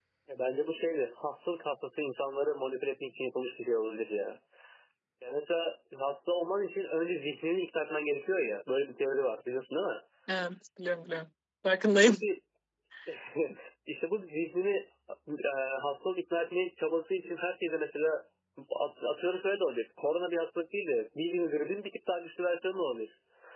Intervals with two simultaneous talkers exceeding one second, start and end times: none

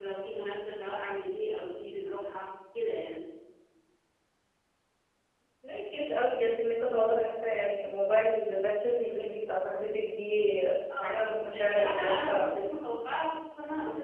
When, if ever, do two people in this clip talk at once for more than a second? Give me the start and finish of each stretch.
11.0-12.5

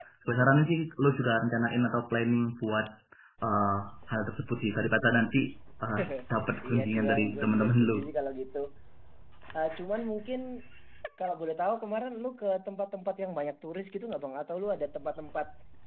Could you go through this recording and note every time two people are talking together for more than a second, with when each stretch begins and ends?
6.6-7.9

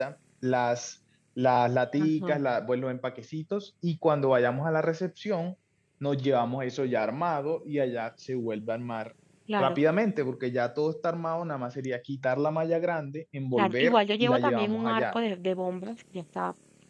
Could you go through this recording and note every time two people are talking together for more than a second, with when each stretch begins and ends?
13.6-15.2

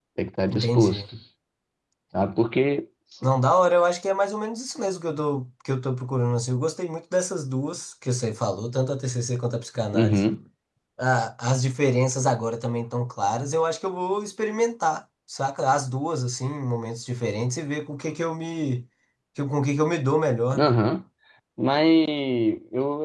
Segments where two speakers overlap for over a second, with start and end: none

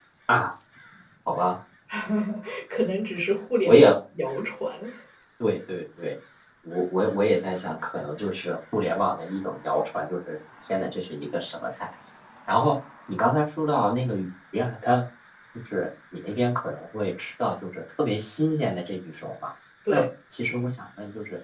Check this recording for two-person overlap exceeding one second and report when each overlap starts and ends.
none

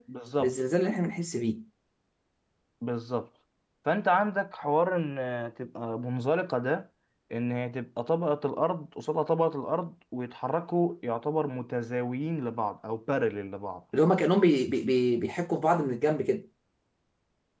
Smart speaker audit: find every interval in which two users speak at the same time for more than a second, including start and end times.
none

